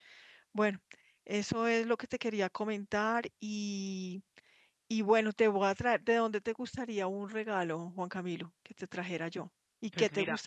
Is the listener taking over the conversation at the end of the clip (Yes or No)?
Yes